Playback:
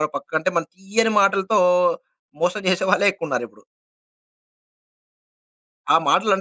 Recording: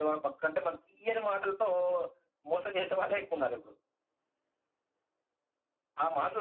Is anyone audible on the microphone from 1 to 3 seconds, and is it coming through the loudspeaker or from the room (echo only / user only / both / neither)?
echo only